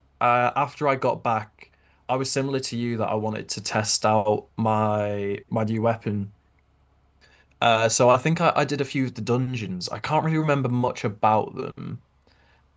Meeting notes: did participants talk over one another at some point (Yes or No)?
No